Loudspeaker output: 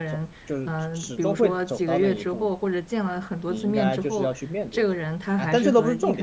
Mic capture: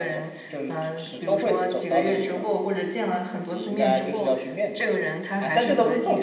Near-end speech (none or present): none